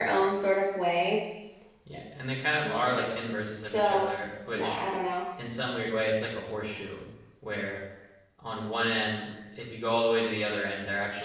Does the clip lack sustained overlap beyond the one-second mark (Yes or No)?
Yes